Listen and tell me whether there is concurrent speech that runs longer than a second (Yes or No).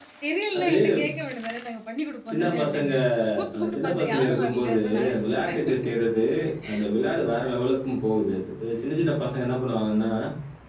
Yes